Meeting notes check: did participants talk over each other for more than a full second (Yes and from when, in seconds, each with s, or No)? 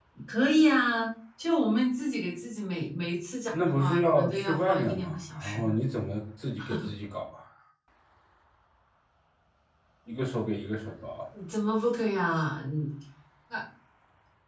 Yes, from 3.5 s